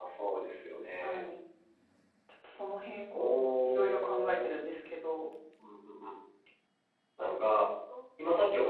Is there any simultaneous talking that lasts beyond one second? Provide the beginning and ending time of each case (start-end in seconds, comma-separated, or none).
3.1-4.5